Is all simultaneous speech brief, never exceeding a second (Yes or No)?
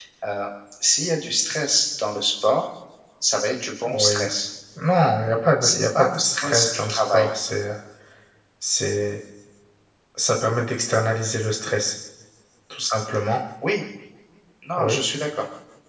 No